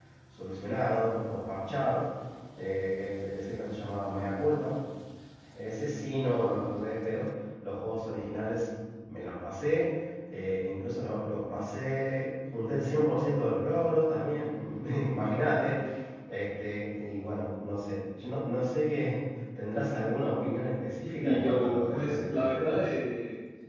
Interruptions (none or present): present